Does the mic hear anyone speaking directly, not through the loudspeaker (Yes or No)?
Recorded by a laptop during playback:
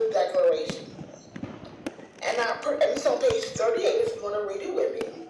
No